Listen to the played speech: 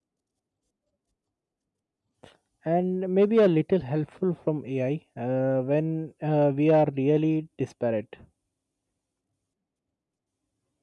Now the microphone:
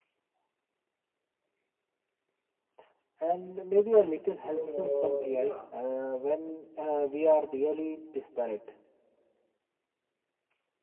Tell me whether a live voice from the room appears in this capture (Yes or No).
Yes